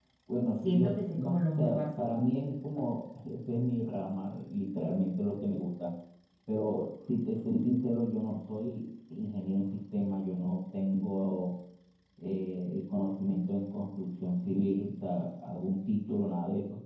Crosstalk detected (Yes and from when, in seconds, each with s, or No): Yes, from 0.5 s